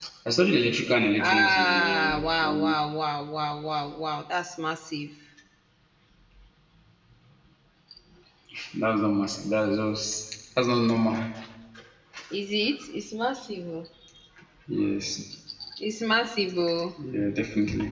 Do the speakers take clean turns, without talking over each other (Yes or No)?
No